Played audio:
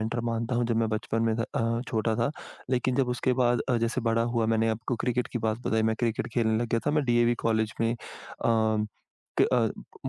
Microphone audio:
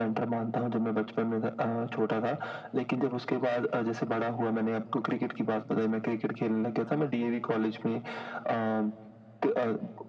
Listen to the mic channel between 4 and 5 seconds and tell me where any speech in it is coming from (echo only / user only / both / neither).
echo only